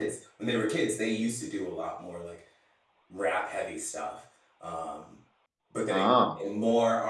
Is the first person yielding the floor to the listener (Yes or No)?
No